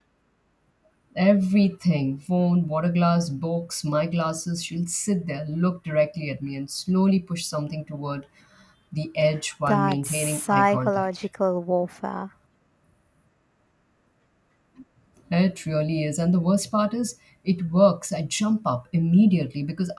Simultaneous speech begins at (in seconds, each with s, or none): 9.7 s